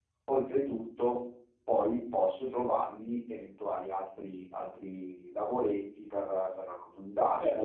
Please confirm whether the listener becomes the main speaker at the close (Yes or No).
Yes